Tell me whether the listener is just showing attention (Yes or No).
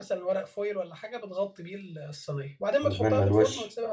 Yes